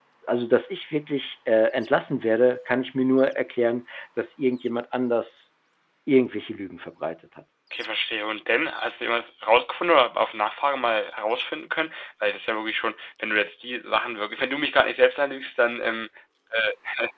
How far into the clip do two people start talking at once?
none

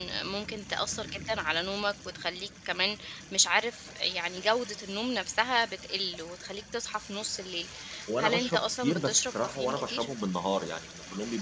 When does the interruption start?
8.2 s

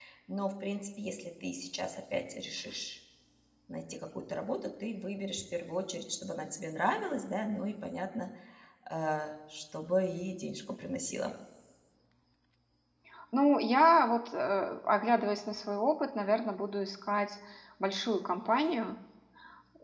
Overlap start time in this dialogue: none

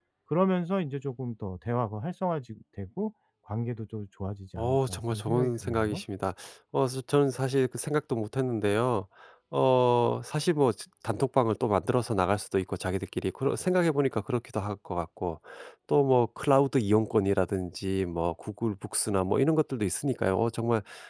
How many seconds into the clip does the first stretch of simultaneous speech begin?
4.6 s

